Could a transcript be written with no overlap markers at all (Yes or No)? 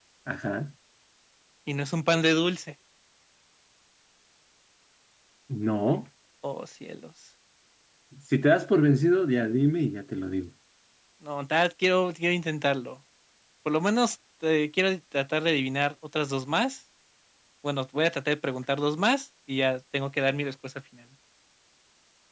Yes